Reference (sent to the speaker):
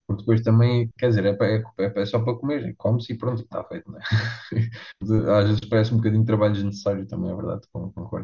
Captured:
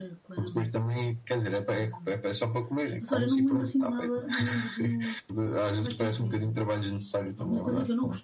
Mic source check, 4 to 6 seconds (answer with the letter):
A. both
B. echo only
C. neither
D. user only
A